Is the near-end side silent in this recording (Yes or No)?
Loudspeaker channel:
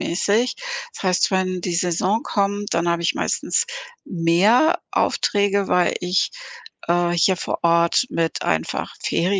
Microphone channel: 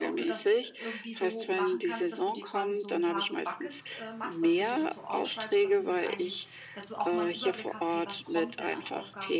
No